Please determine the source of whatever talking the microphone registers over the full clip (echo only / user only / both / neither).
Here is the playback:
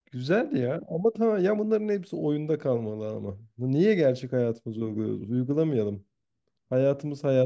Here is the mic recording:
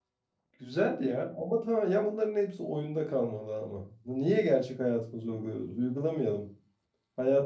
echo only